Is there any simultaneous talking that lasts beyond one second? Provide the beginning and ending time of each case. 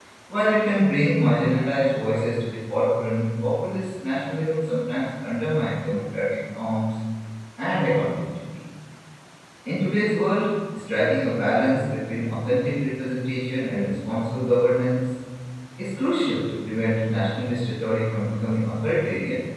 none

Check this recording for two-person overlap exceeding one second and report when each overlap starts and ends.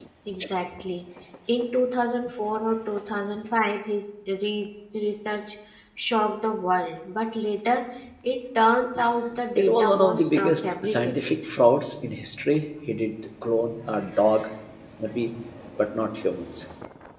9.6-11.4

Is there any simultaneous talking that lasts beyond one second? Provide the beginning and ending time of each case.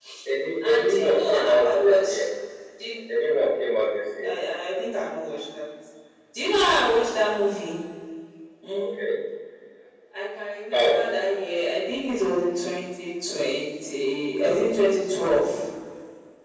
0.7-2.2

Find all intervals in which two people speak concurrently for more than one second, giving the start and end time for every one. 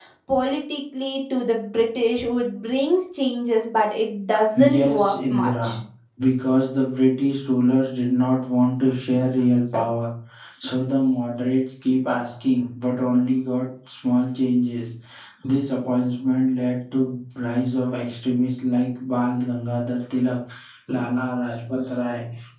4.5-5.8

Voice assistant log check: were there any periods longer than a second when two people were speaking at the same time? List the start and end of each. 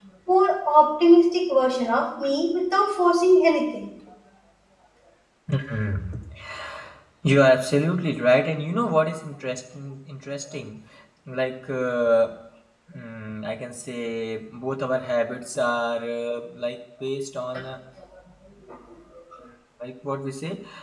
none

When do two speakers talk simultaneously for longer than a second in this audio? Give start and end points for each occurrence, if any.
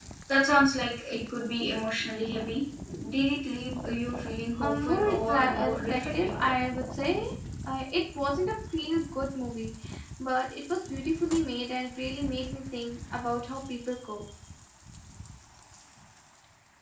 4.6-6.4

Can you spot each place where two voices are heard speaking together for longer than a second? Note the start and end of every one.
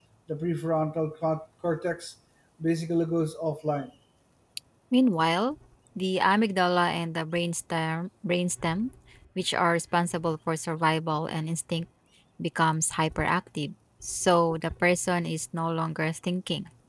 none

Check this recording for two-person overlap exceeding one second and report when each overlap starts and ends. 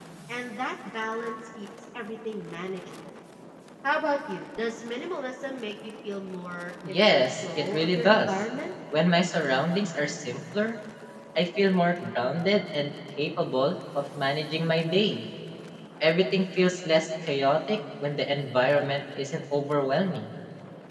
6.9-8.3

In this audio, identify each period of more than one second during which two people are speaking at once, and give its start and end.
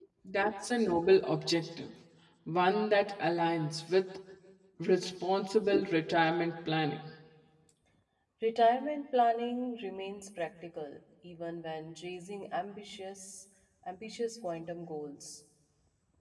none

